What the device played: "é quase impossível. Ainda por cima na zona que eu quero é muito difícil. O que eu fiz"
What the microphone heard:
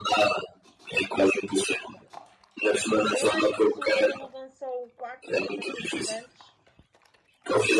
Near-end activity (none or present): present